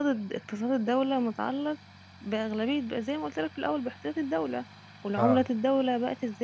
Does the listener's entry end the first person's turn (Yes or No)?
No